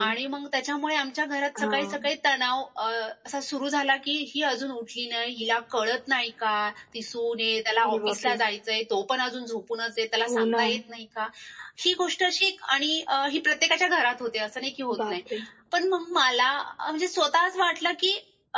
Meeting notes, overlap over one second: none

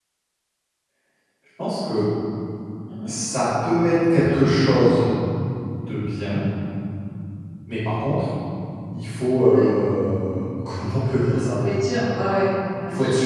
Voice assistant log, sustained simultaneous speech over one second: none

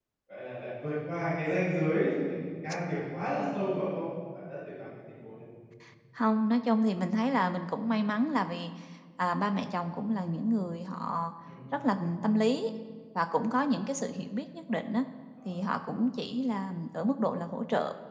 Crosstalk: none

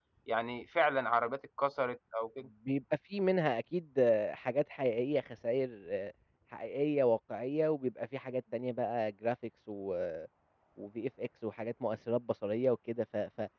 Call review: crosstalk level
none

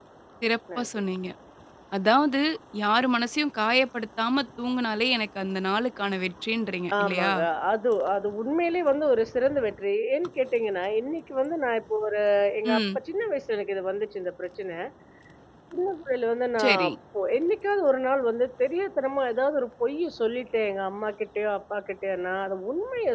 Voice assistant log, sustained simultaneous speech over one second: none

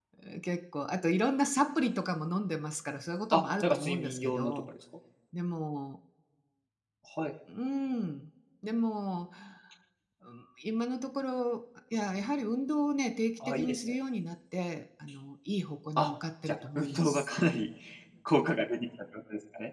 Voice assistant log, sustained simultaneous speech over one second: present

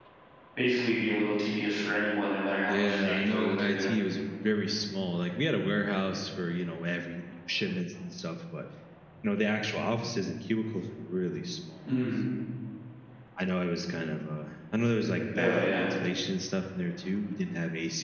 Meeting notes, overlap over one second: present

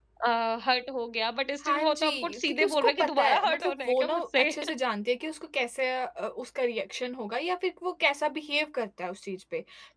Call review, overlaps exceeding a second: present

